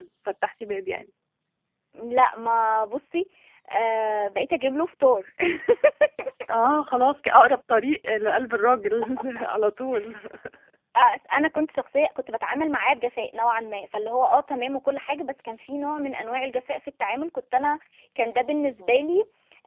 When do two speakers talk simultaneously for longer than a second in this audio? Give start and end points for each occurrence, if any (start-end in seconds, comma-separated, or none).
none